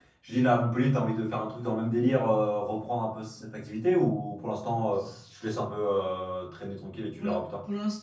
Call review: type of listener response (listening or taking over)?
taking over